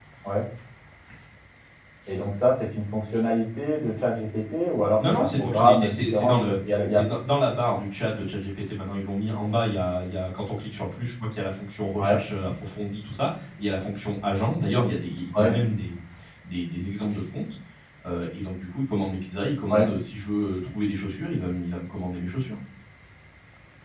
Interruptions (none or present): present